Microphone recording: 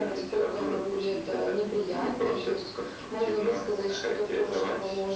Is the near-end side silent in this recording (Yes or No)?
Yes